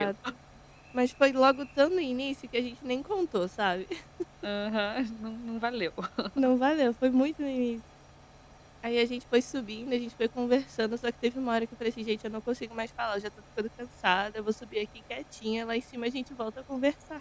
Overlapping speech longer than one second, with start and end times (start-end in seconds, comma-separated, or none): none